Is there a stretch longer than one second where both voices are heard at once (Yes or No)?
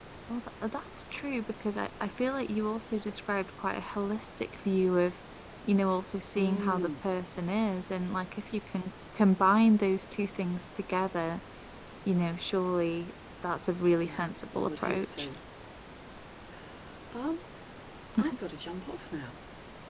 Yes